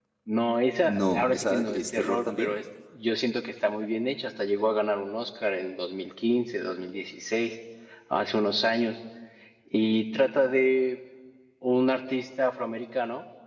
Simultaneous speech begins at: 0.9 s

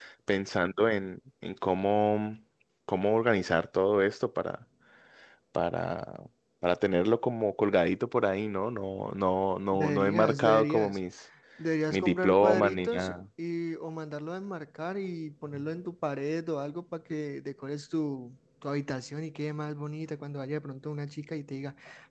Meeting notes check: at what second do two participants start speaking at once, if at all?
9.7 s

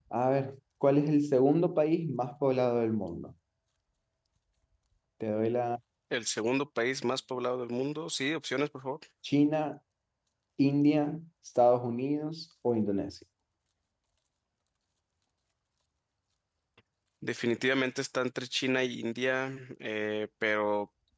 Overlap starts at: none

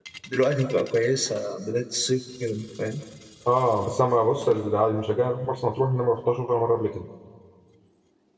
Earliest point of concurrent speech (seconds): none

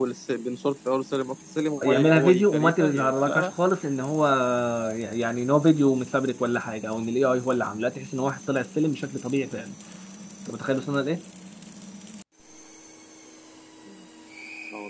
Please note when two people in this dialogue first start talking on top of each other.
1.8 s

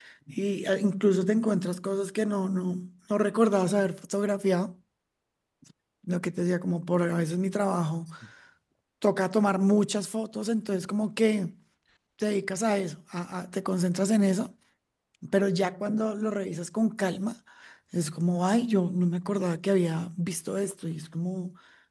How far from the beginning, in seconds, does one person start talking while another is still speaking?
none

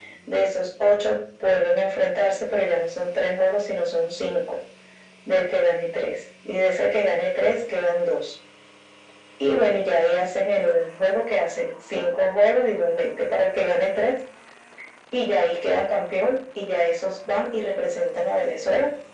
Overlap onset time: none

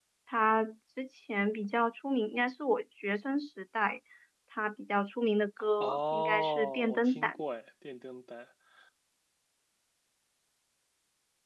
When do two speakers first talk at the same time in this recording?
5.8 s

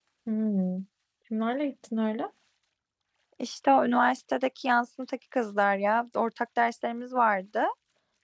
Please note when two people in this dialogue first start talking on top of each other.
none

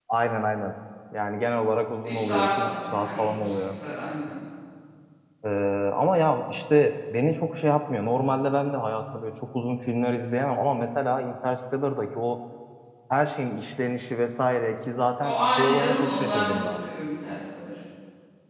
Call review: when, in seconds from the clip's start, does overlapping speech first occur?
2.0 s

